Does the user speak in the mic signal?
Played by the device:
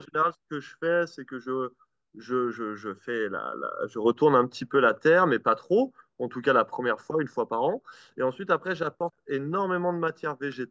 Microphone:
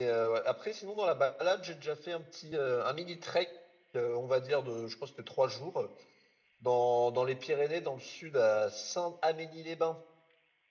Yes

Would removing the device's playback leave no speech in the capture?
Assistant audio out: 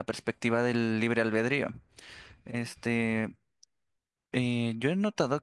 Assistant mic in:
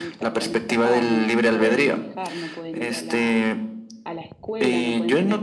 No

